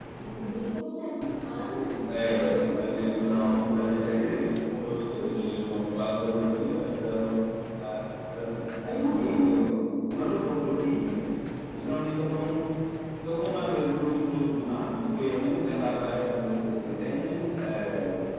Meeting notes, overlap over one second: present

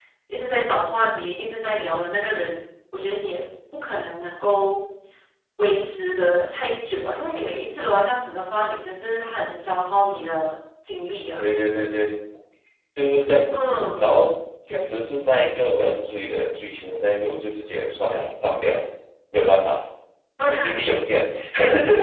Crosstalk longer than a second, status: none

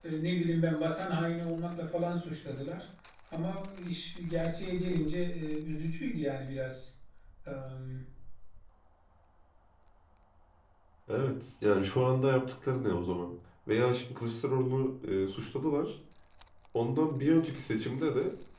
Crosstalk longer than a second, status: none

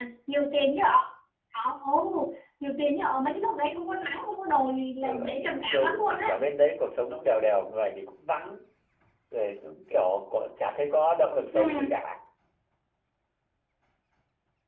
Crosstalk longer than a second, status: present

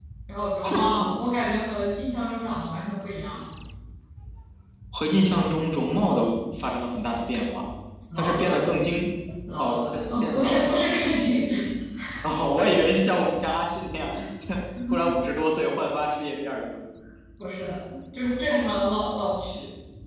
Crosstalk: present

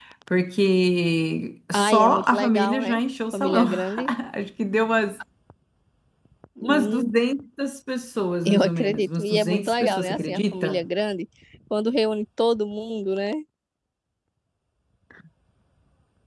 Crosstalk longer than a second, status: present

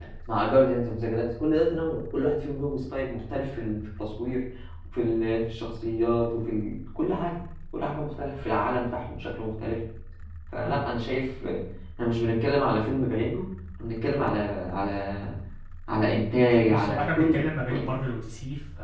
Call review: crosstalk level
present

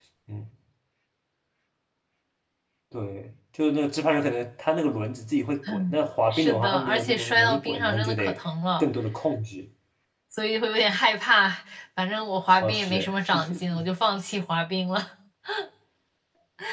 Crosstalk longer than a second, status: present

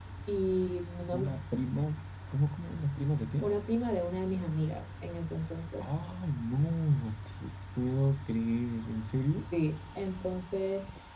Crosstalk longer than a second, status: none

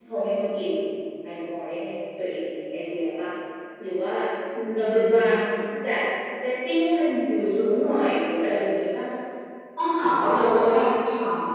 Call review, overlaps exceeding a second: none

